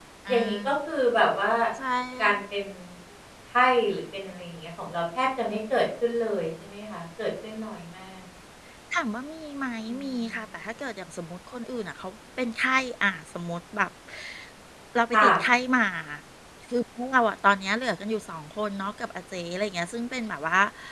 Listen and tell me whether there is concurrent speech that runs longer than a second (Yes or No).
No